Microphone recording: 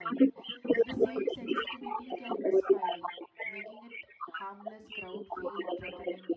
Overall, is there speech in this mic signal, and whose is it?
both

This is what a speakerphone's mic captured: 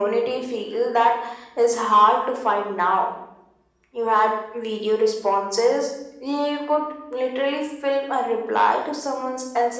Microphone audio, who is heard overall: echo only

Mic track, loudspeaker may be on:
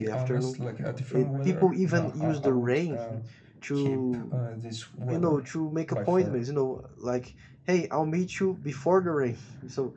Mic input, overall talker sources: both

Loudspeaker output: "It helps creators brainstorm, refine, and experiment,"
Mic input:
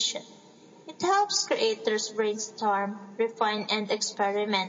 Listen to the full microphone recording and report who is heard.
echo only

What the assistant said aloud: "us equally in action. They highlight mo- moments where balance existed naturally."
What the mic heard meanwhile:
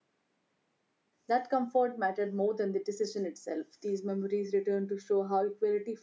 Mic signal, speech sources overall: user only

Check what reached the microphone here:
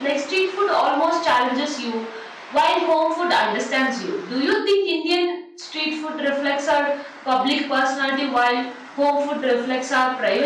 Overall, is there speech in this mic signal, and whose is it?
user only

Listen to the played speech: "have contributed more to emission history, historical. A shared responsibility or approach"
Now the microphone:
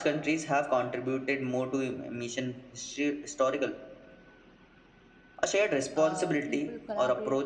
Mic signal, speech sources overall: both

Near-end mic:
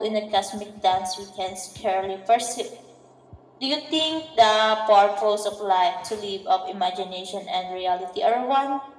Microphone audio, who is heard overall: echo only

